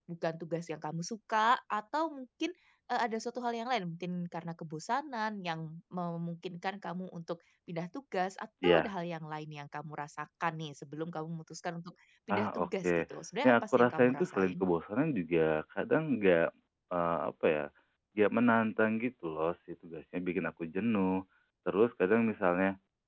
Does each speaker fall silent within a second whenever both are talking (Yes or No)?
No